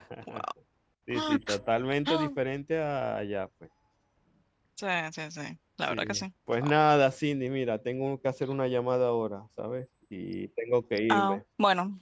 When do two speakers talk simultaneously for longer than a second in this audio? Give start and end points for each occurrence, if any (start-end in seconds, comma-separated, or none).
none